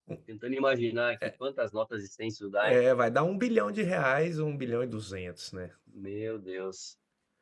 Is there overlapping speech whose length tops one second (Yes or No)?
No